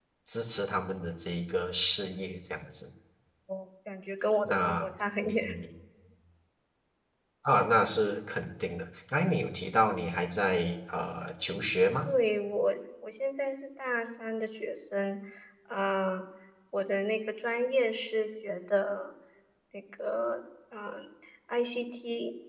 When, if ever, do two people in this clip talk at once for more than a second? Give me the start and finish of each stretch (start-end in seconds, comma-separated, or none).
none